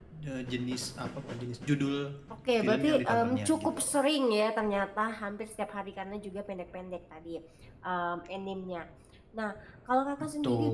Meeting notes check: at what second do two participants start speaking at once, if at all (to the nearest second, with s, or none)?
3 s